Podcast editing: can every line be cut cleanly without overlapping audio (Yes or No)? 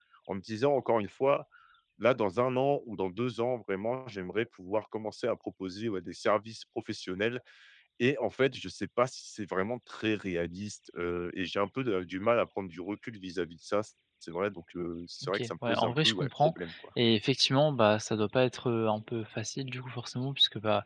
No